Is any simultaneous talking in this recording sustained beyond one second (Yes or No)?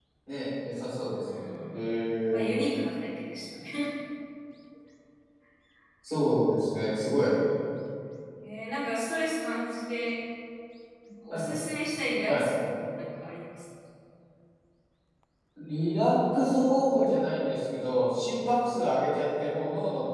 No